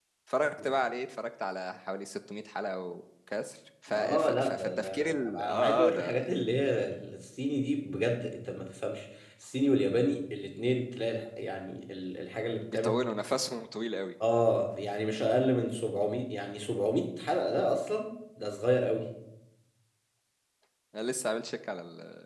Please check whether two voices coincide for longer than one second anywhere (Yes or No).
Yes